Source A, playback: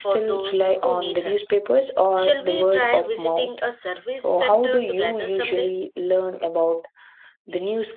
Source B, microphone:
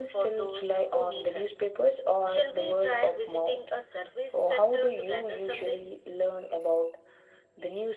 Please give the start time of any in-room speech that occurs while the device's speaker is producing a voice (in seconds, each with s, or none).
none